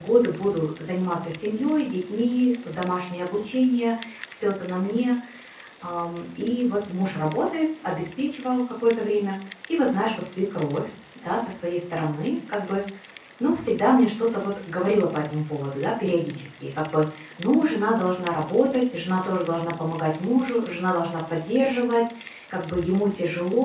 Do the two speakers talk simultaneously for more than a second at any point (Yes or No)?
No